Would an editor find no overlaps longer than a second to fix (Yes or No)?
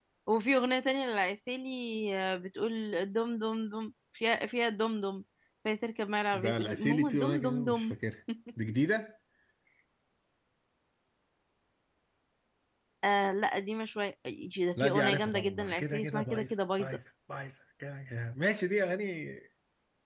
No